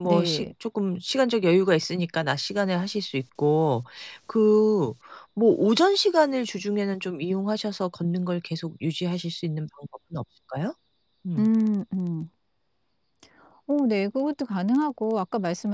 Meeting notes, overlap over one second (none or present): none